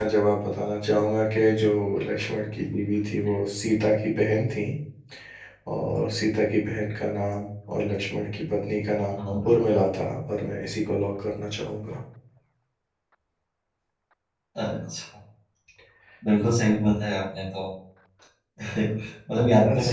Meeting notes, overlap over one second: none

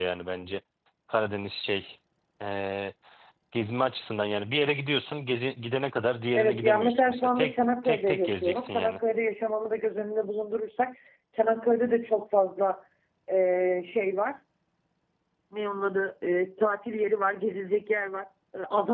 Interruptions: present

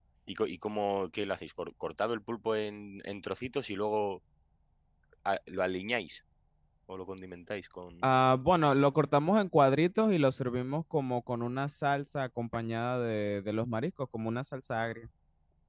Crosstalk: none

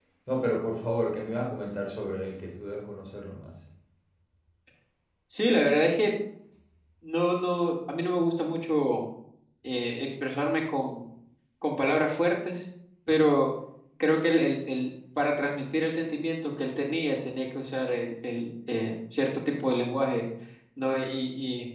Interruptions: none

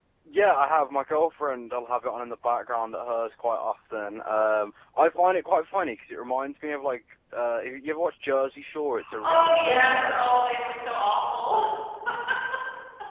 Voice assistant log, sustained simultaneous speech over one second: present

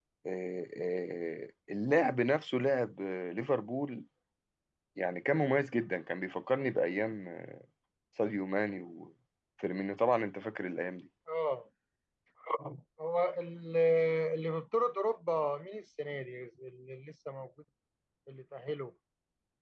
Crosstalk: none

